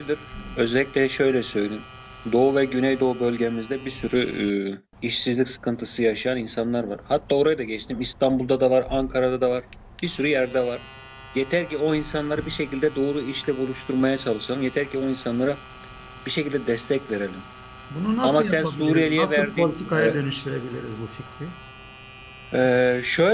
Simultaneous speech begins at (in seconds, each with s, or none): 18.2 s